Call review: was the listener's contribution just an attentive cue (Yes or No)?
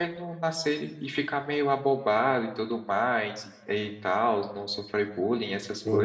No